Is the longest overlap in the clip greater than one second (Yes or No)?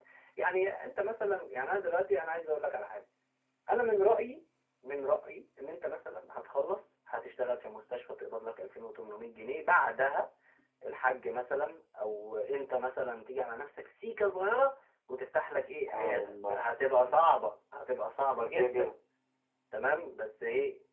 Yes